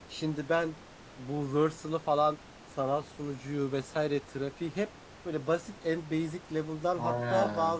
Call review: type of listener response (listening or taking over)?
listening